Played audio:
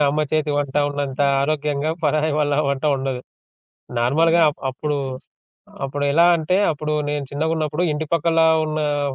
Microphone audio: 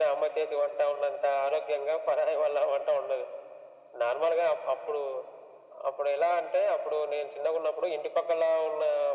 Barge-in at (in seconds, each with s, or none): none